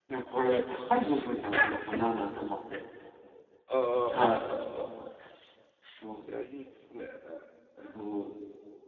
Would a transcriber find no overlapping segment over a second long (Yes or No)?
Yes